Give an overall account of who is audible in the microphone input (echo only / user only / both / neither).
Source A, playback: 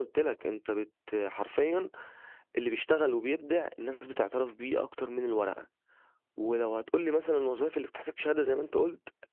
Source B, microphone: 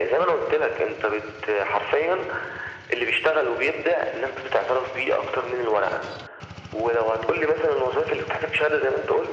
echo only